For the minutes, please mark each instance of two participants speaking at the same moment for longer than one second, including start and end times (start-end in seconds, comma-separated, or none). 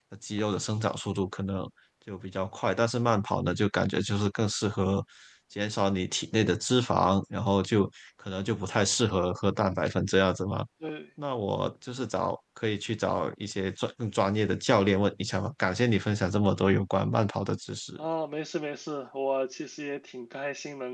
none